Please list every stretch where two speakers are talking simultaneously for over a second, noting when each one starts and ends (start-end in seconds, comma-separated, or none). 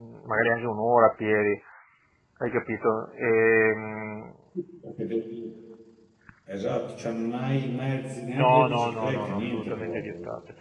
8.3-10.1